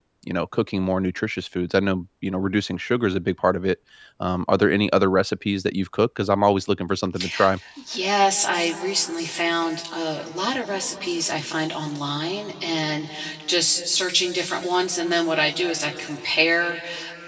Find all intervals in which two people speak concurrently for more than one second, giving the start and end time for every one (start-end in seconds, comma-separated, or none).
none